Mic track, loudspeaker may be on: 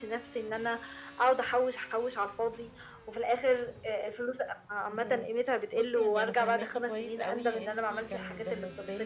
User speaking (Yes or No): Yes